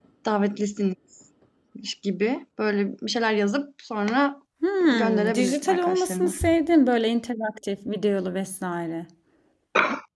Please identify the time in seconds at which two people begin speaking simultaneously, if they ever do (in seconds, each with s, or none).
4.9 s